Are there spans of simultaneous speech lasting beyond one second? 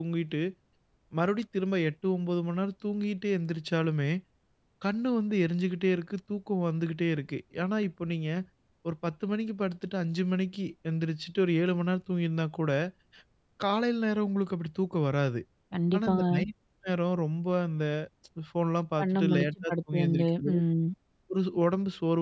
Yes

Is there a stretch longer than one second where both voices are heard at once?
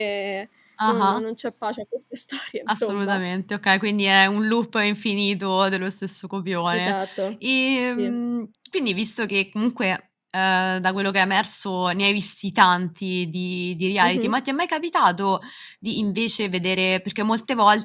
No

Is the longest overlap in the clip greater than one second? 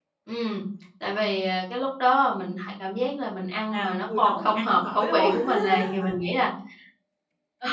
Yes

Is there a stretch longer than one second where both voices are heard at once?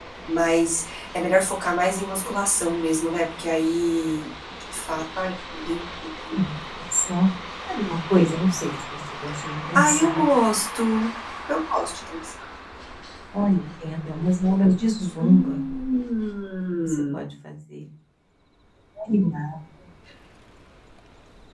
No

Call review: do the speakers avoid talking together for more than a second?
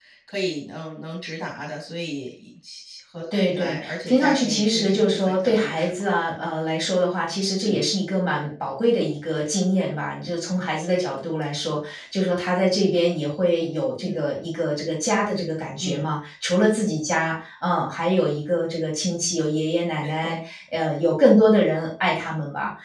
No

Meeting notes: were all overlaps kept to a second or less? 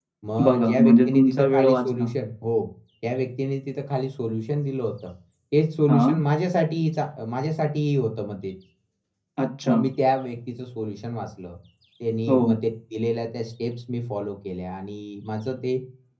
No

